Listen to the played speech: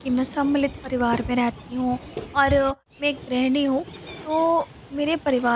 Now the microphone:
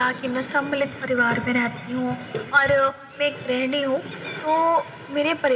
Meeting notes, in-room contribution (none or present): none